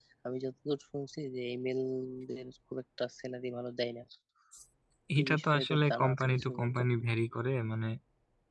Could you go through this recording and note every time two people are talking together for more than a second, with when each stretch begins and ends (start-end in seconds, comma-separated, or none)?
5.2-6.8